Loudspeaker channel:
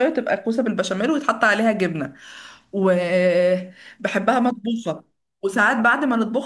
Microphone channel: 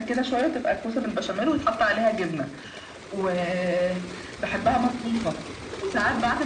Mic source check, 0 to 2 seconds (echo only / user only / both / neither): echo only